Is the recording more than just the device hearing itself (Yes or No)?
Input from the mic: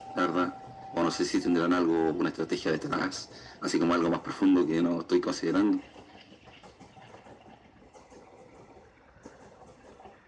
No